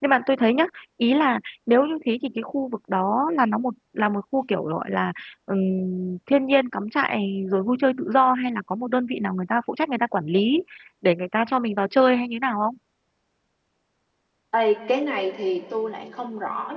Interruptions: none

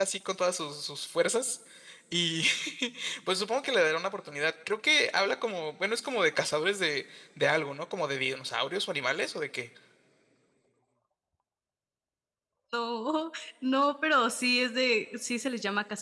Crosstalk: none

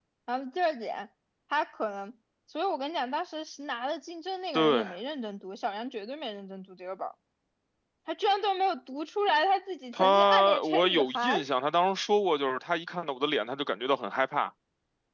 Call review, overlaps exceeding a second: present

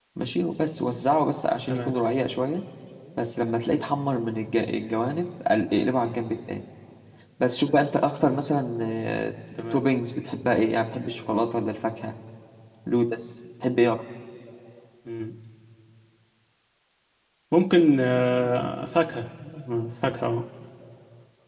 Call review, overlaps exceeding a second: none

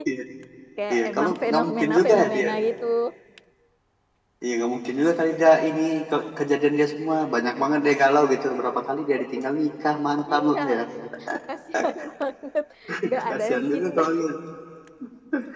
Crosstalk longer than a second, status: present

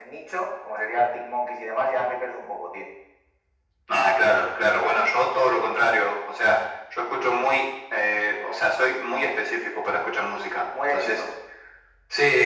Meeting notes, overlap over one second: none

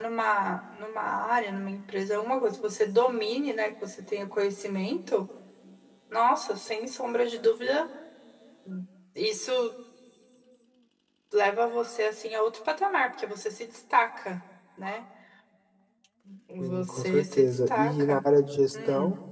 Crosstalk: present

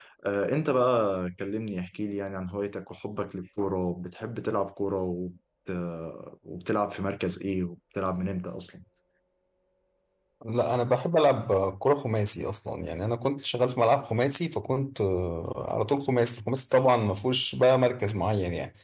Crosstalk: none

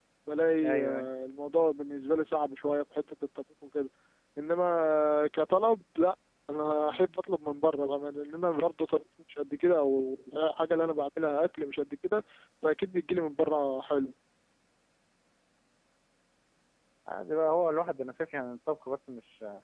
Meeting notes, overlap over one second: none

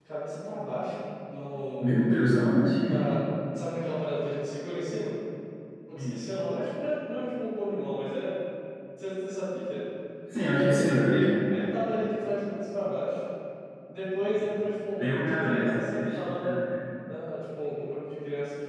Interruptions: present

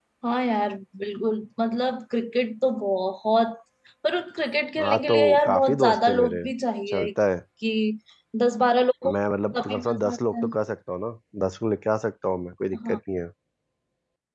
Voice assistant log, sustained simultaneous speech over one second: present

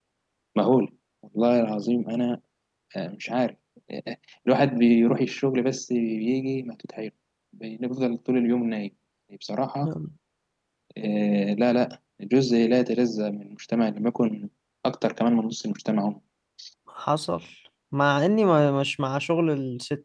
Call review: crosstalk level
none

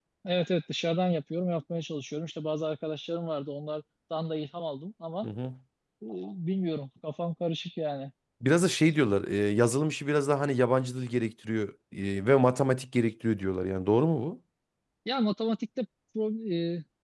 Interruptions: none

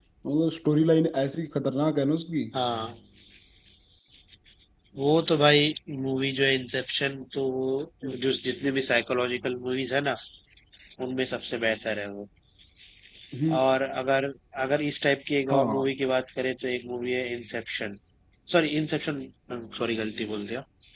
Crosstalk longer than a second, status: none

